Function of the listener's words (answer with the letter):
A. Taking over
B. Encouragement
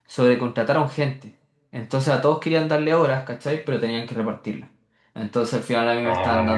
B